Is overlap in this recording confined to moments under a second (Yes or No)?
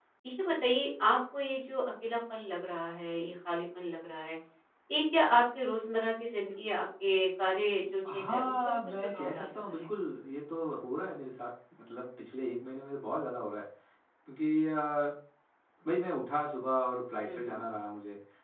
No